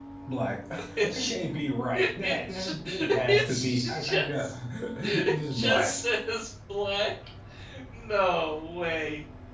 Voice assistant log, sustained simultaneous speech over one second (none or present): present